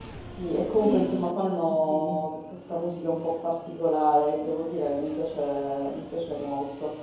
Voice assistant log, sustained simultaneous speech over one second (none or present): present